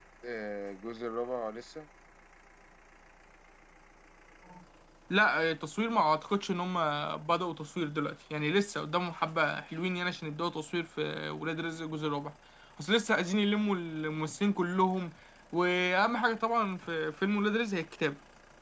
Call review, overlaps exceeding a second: none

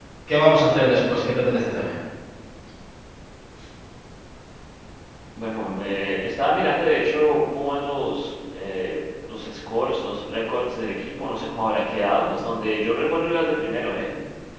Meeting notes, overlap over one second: none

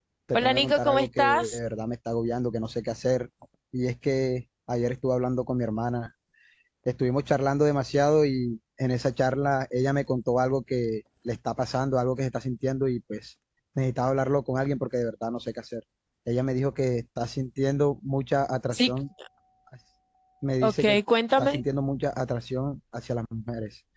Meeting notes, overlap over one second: present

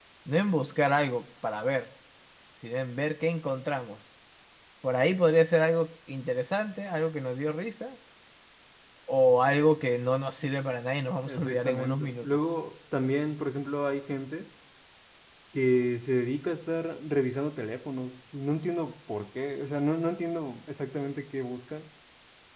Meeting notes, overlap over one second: present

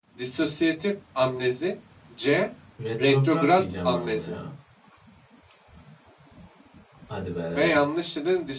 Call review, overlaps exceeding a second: present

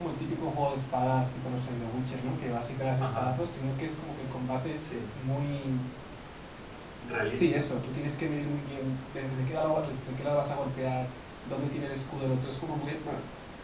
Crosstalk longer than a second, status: none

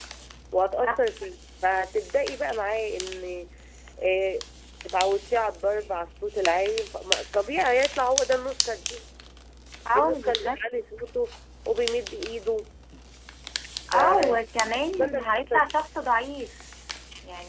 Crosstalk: present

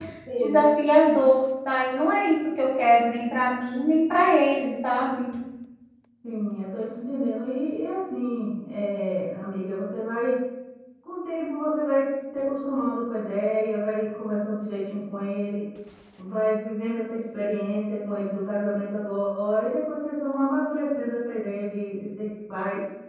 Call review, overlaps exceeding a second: none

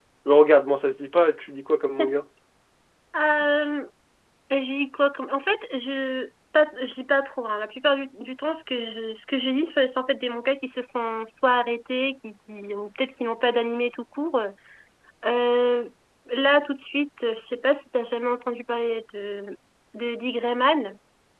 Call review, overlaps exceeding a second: none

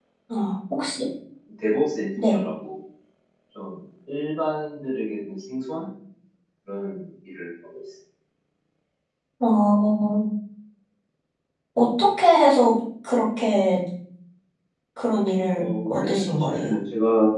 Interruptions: present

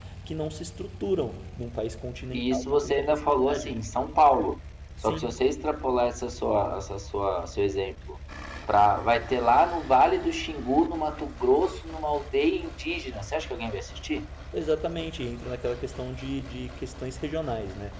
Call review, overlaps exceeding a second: present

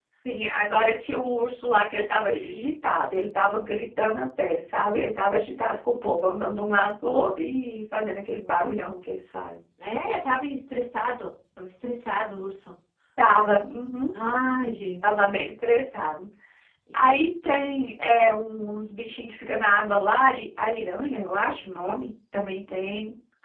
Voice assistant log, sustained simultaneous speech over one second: none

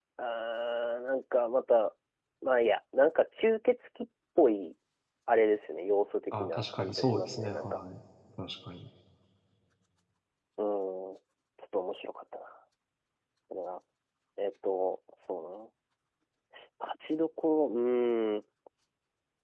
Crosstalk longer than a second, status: present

